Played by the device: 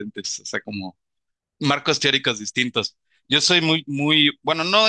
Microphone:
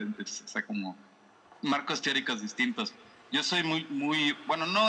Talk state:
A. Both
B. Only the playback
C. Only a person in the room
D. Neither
B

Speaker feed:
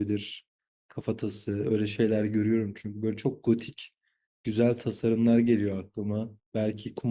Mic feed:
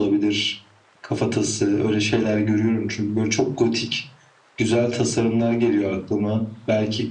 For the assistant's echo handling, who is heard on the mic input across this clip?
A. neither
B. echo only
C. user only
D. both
B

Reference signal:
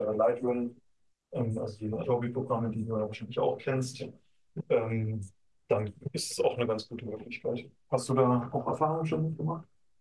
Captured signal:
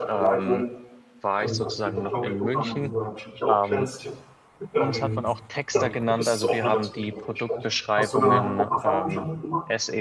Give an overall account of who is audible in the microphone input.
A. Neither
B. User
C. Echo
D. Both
D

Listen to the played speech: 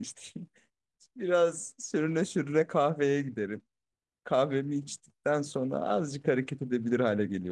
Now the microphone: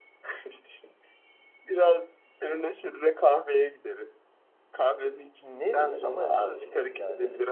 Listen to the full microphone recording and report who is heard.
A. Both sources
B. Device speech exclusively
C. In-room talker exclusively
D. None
A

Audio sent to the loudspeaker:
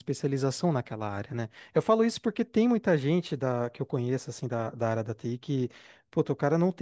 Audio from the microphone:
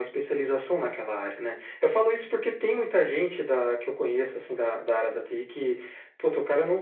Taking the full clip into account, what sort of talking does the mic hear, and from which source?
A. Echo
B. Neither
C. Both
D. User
A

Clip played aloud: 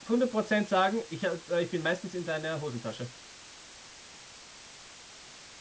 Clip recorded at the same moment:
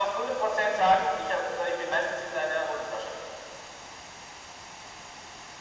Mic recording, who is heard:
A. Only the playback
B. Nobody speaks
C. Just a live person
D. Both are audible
A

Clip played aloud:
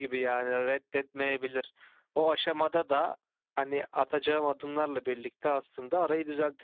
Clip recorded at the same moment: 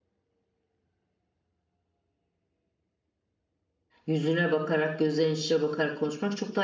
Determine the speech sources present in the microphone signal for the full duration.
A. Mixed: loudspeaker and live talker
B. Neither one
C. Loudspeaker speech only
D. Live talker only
D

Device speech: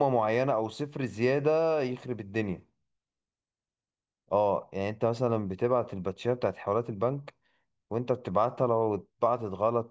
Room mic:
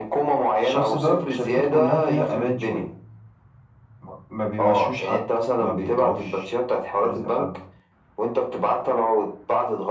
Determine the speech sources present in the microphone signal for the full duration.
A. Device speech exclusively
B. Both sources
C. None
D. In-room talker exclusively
B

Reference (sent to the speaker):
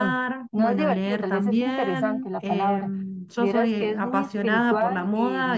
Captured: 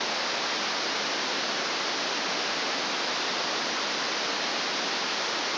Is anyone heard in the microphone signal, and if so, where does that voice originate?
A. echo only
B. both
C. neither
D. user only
C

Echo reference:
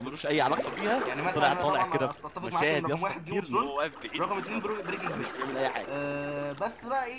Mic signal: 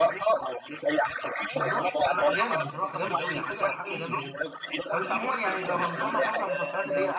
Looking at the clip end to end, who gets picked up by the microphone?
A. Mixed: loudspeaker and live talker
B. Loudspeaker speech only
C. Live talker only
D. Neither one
A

